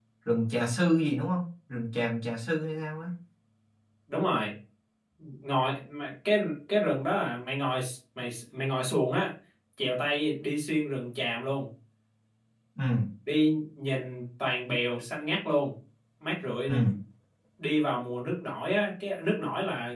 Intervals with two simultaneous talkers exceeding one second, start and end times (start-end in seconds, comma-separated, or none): none